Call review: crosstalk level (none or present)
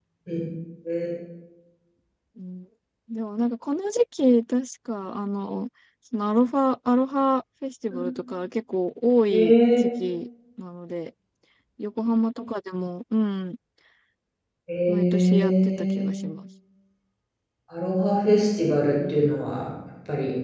present